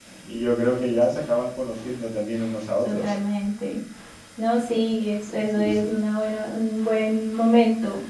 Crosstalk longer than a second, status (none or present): none